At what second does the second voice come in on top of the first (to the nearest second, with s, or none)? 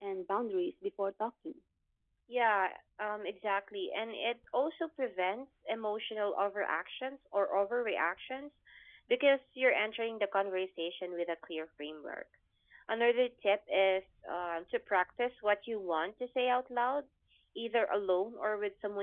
none